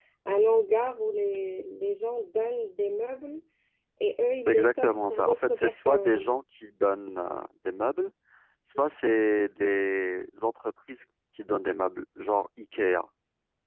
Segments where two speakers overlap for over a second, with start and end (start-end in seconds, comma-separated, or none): 4.4-6.3